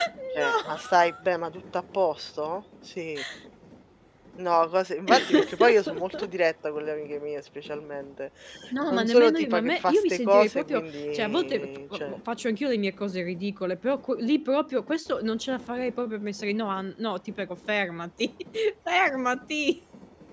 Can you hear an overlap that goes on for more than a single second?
Yes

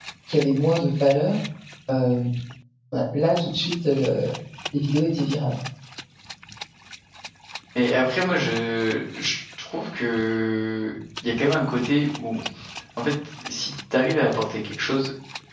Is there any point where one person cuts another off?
No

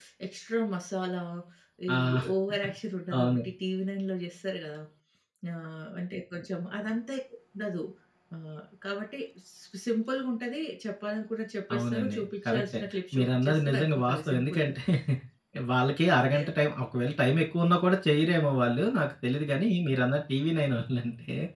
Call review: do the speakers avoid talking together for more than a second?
No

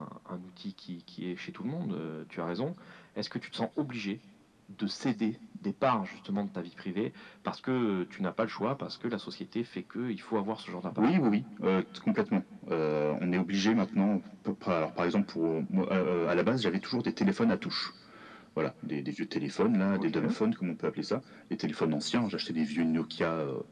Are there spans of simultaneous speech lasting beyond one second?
No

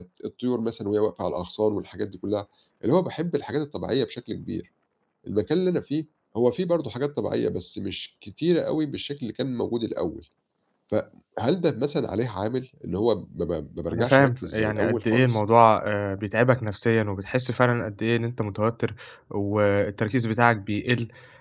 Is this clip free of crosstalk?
No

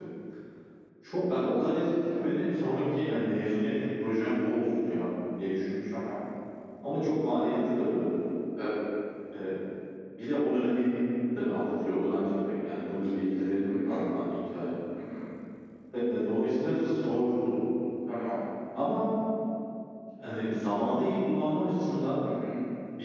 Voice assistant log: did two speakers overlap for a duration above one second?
No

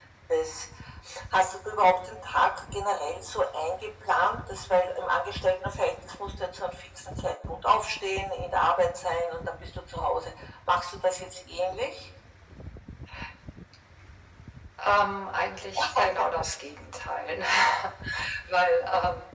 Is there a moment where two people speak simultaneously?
No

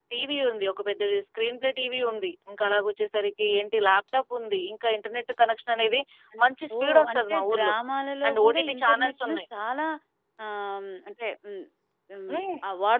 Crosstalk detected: Yes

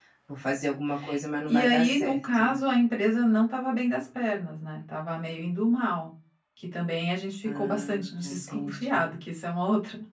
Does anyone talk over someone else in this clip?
Yes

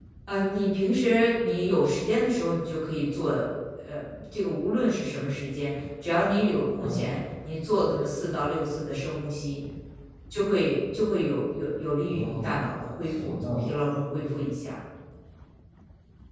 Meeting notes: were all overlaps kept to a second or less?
No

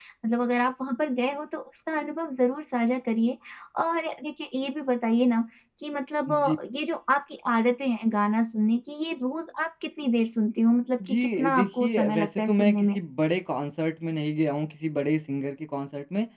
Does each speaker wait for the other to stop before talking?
No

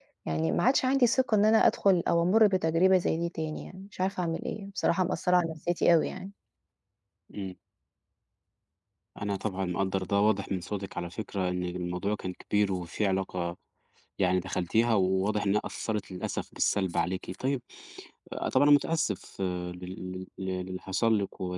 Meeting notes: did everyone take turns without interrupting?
Yes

